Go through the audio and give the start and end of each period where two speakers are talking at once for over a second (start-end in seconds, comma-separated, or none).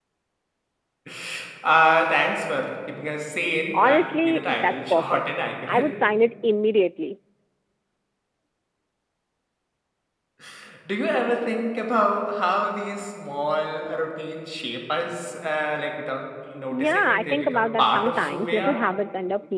3.7-5.2, 16.7-18.8